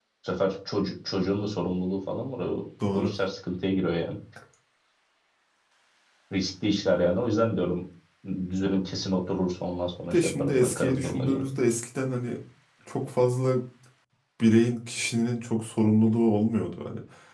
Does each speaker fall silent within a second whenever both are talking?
No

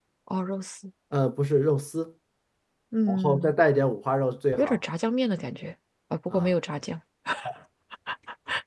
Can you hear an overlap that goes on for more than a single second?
No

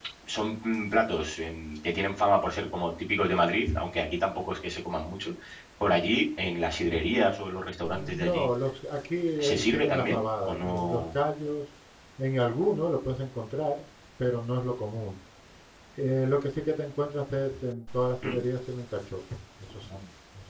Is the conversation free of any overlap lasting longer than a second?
No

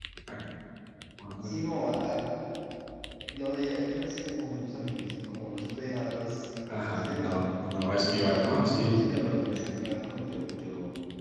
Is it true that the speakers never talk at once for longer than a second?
No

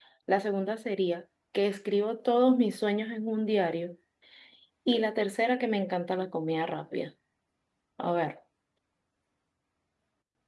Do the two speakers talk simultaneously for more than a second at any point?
No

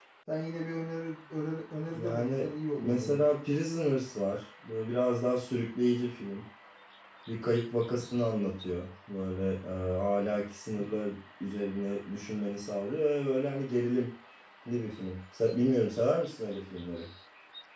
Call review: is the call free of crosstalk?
No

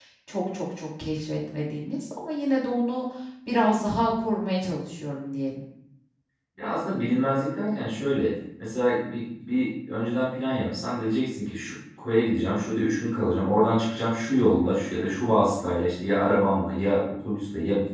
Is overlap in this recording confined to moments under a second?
Yes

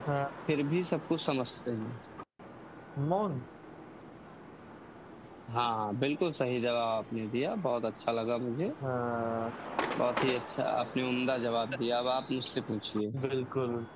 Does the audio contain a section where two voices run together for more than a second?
No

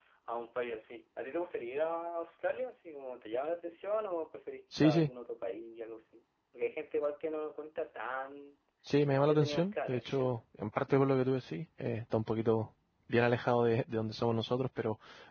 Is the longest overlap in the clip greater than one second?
Yes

